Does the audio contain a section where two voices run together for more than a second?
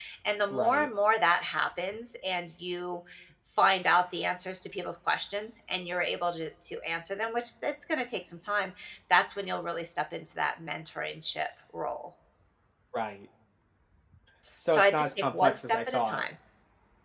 Yes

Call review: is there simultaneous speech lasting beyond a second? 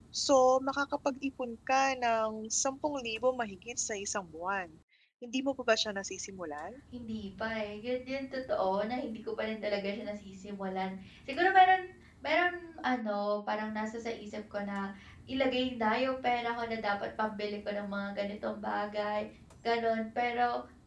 No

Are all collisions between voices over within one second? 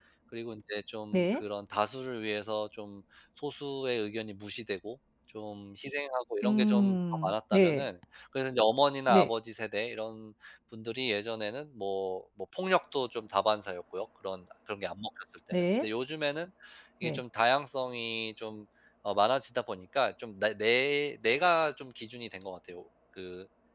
No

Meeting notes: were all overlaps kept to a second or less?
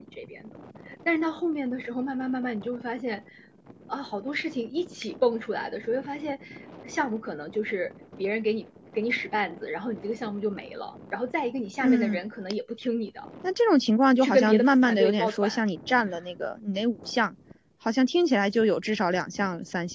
No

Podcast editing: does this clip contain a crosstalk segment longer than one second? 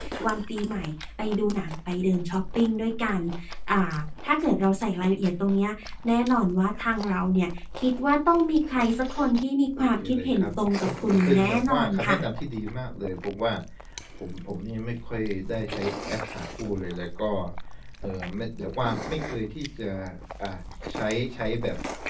Yes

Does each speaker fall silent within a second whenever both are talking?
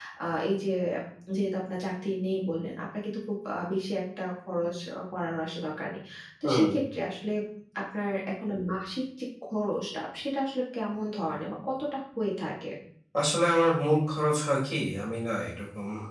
Yes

